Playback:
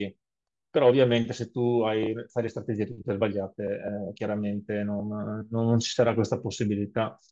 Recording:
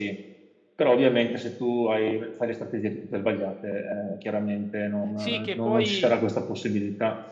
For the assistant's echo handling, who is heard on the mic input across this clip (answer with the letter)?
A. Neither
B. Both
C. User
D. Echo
B